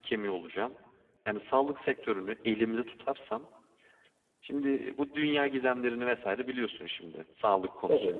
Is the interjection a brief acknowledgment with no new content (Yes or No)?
Yes